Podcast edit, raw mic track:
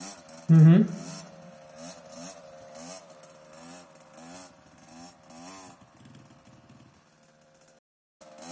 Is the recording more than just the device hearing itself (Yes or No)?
Yes